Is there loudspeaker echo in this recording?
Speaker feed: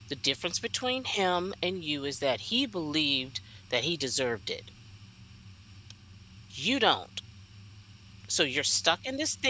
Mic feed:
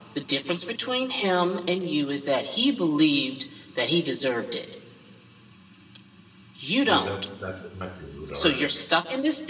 Yes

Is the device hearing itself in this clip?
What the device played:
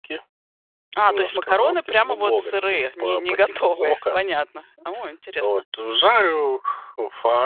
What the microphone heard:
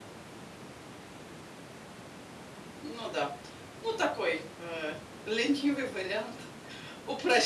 No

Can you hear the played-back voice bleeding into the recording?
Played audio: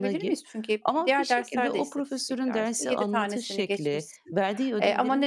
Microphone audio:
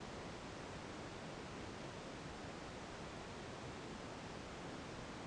No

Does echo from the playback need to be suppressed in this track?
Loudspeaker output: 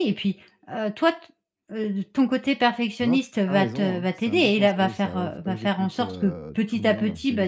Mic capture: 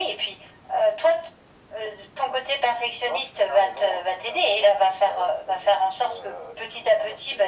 Yes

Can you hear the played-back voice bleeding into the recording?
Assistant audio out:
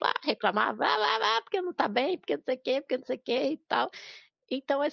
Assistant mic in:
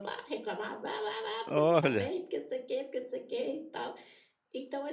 Yes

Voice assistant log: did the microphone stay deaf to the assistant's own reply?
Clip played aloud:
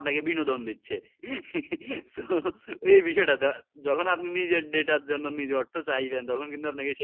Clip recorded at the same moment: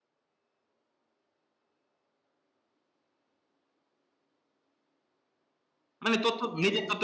Yes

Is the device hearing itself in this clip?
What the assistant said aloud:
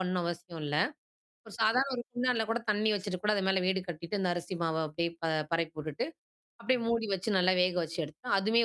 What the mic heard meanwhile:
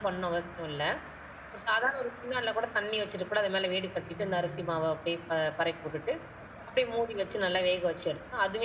Yes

